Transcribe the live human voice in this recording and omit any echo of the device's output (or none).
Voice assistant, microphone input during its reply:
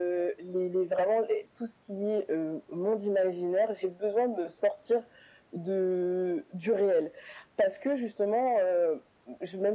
none